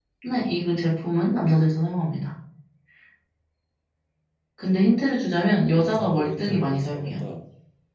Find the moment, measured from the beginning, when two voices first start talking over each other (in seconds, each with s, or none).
5.7 s